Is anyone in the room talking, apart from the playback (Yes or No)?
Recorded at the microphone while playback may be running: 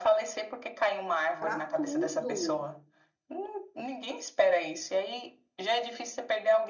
Yes